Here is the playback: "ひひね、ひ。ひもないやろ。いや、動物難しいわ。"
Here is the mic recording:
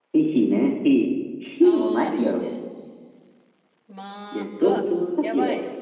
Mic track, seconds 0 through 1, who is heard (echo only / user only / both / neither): echo only